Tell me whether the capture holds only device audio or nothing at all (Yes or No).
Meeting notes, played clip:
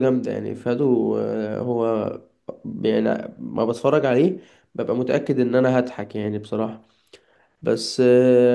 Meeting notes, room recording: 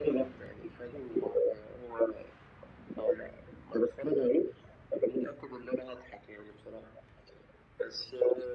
Yes